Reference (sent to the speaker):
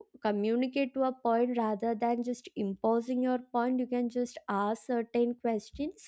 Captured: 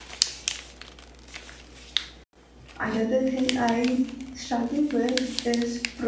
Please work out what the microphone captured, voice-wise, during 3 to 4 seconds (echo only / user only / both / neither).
user only